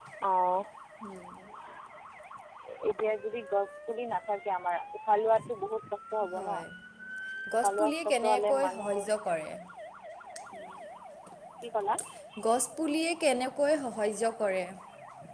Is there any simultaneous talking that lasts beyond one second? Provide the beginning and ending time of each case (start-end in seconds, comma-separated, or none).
7.6-8.9